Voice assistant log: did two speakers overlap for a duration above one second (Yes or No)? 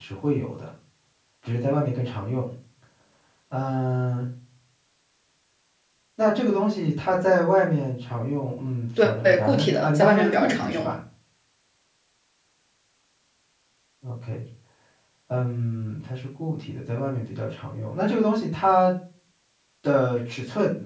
Yes